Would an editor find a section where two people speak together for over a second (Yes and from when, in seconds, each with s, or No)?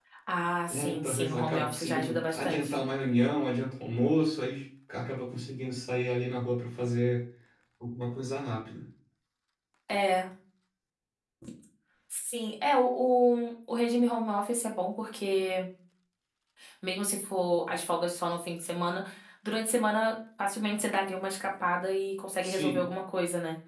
Yes, from 0.7 s